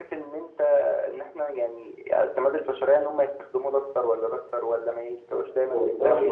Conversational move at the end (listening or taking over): taking over